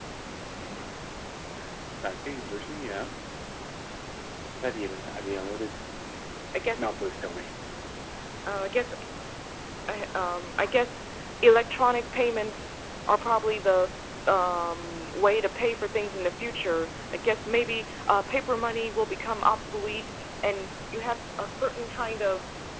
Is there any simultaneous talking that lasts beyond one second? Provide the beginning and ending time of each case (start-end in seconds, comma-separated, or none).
none